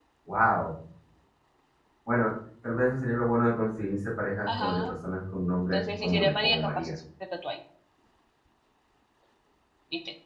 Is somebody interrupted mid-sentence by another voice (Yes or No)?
Yes